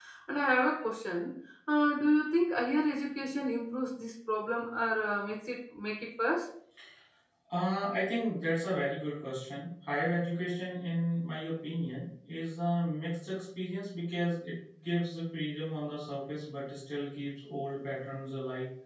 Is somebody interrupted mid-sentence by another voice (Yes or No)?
No